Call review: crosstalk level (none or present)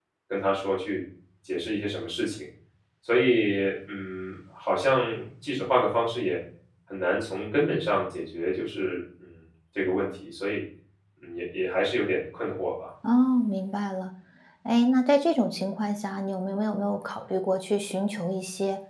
none